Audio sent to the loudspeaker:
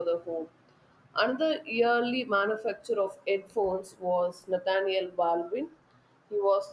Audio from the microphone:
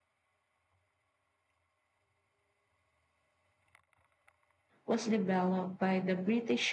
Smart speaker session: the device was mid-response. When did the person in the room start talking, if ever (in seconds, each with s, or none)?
4.8 s